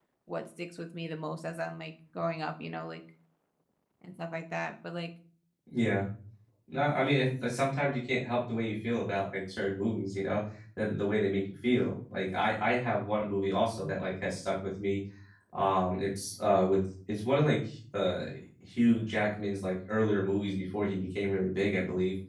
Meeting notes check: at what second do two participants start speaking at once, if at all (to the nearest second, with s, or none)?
none